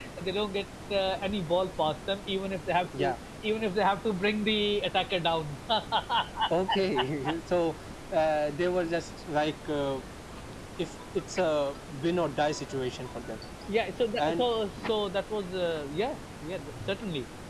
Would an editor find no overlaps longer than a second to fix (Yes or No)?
Yes